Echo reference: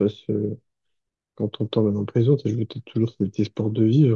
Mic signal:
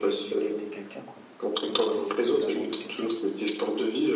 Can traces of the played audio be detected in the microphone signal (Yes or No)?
Yes